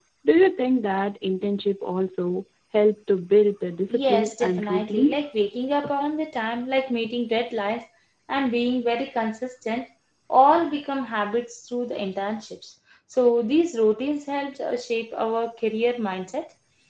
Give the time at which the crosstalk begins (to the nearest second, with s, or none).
4 s